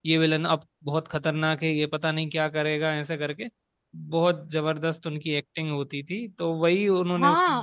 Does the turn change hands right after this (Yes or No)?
Yes